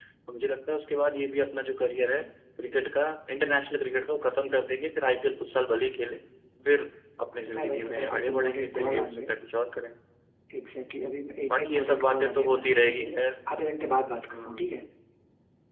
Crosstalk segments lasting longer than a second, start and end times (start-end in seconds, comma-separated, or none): 7.5-9.3, 11.5-13.1